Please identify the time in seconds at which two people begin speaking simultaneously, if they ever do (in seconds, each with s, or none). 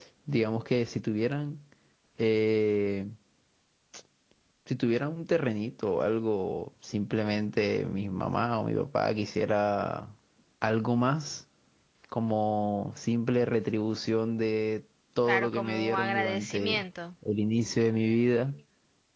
15.3 s